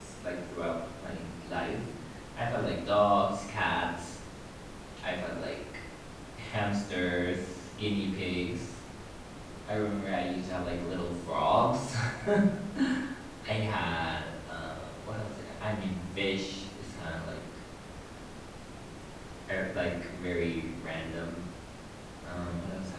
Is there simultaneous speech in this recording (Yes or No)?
No